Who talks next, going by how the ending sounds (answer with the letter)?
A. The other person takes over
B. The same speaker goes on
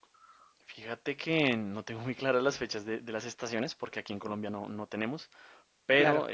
B